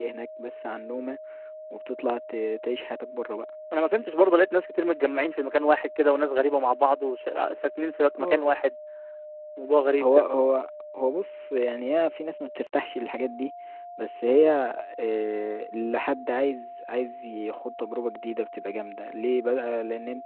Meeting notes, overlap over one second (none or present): none